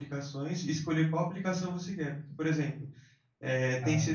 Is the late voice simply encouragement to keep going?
Yes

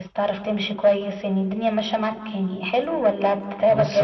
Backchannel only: No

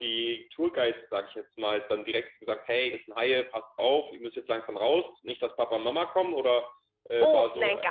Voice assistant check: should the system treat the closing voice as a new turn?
Yes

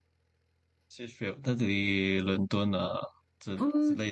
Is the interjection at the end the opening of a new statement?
Yes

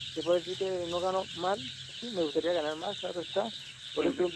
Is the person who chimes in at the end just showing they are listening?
Yes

